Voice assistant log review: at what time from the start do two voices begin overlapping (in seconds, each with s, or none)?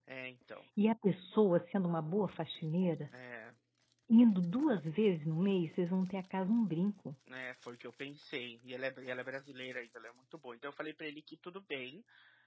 none